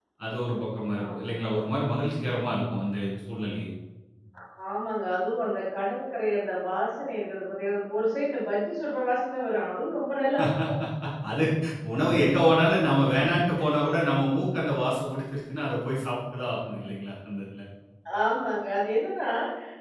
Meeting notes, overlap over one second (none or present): none